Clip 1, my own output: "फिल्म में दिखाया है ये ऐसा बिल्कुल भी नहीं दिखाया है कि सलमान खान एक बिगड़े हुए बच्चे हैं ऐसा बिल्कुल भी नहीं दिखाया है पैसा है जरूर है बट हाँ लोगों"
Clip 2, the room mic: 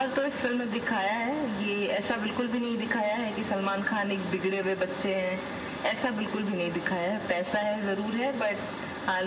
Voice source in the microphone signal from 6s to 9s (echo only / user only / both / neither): echo only